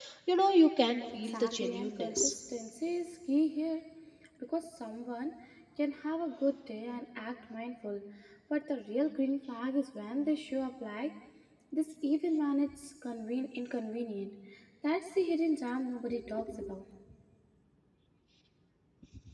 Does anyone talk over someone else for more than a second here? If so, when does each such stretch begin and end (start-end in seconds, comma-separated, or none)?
1.1-2.3